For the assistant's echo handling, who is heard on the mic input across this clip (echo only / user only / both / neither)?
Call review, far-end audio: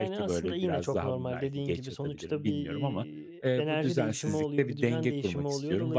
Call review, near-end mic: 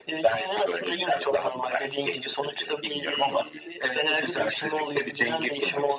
echo only